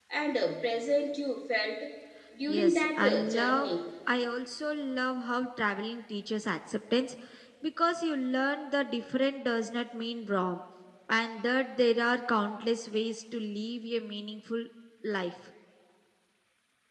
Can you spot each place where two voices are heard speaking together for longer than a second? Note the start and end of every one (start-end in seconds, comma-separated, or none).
2.5-3.7